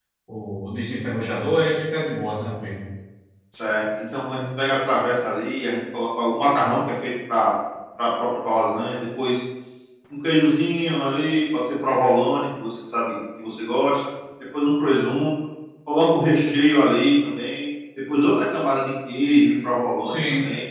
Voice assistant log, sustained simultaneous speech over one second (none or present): none